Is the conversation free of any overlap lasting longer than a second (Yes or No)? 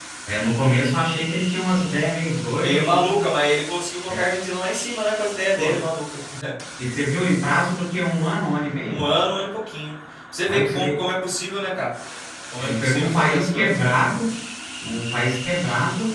No